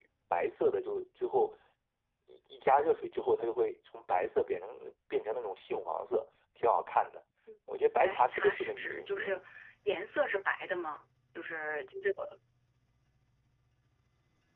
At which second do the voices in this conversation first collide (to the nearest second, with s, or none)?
8 s